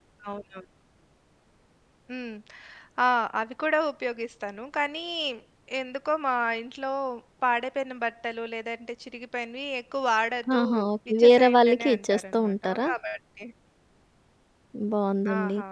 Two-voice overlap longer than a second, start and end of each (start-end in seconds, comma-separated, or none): 11.1-12.9